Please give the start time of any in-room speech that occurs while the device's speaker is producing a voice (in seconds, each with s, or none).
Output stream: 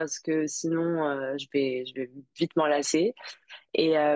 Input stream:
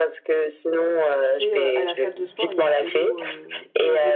1.2 s